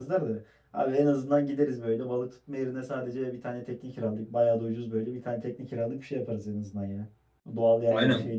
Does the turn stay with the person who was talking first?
No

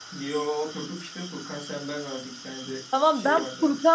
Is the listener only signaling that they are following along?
No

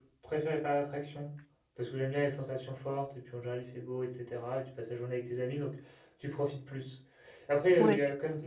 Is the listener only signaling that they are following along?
Yes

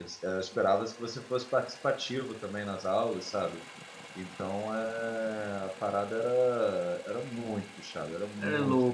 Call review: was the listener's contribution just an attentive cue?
Yes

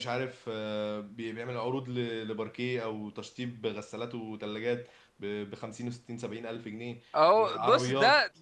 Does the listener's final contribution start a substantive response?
Yes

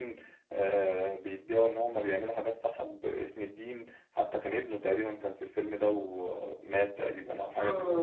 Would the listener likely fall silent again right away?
No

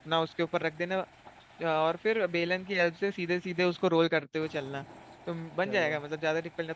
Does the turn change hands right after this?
No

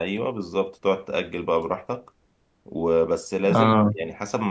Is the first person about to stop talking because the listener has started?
No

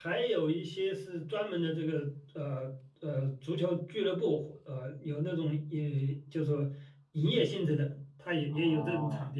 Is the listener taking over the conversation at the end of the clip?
Yes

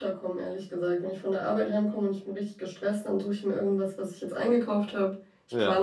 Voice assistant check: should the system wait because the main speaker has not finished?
Yes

